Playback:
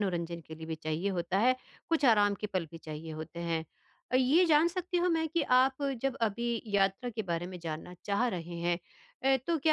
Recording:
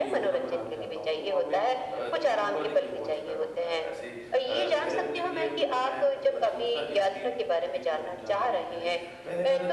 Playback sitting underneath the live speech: No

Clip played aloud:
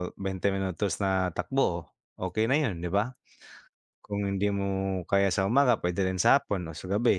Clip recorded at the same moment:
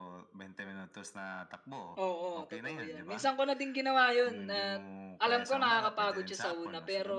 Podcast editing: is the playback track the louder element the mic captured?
No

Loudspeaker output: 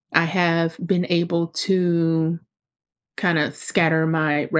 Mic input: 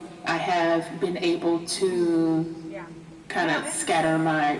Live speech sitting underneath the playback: Yes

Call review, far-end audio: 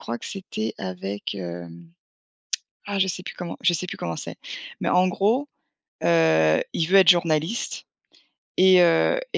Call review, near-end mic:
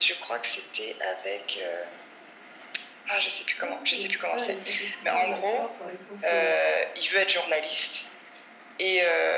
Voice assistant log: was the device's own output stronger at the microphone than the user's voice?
Yes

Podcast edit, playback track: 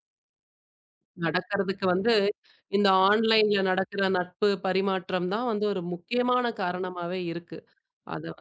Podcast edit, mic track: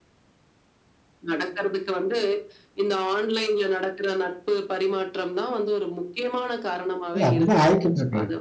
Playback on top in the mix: No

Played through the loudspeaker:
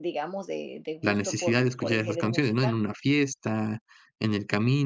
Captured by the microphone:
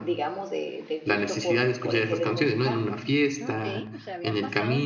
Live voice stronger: No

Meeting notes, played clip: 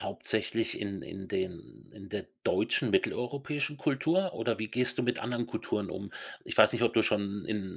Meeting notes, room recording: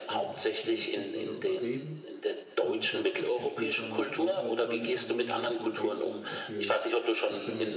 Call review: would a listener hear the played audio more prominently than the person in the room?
Yes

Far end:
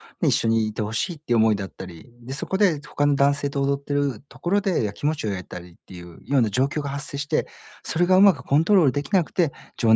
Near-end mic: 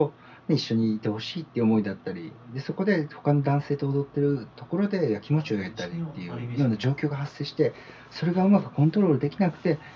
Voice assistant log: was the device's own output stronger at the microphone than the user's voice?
Yes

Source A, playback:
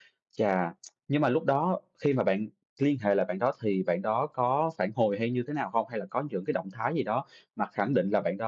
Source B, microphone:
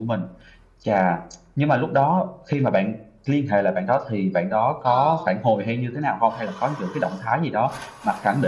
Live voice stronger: No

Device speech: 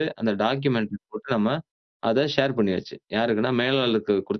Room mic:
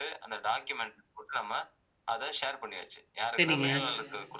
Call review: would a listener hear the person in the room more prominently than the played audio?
Yes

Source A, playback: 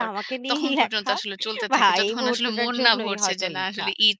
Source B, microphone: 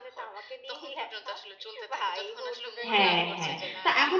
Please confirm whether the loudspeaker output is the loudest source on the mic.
No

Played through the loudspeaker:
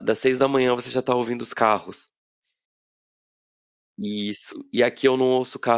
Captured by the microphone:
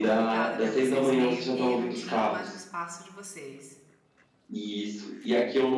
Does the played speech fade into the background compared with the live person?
No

